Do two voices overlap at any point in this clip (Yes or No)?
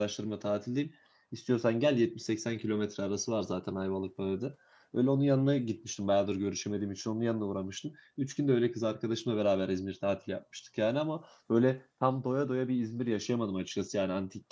No